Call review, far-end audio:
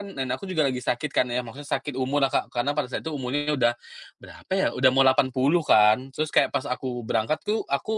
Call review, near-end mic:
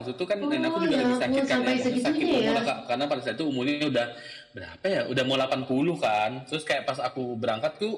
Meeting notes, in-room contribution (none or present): present